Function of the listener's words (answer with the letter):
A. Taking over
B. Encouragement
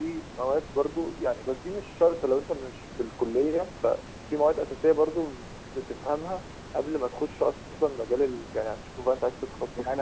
A